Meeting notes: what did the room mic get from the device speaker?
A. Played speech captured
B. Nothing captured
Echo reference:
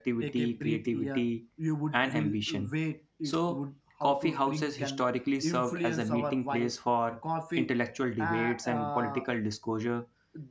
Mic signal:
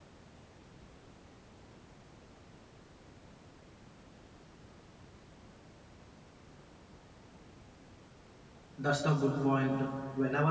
B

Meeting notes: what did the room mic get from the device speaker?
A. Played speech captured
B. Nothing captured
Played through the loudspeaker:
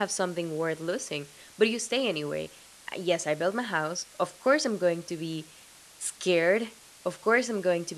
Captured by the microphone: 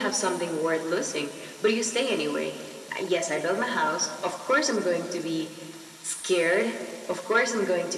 A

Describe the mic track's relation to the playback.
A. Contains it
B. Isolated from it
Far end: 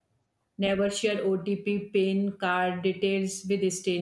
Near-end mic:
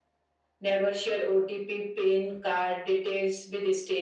A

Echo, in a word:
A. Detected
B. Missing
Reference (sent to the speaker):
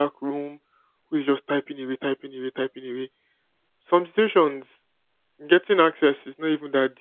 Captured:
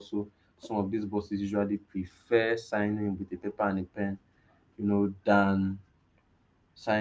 B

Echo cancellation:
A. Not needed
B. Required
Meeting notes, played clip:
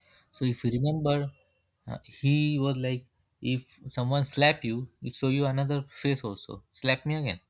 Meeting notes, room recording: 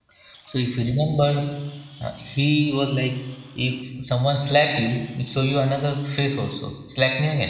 B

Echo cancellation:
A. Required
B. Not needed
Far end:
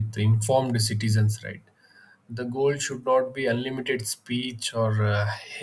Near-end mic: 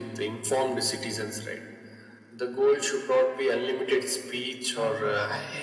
A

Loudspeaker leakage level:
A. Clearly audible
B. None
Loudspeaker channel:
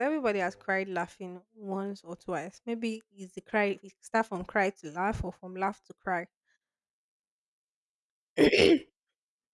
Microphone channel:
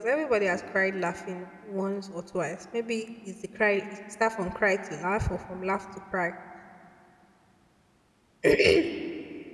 A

